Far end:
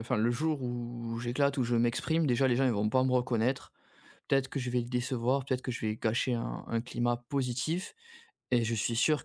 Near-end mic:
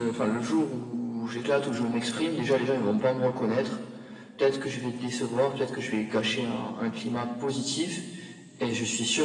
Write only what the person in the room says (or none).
none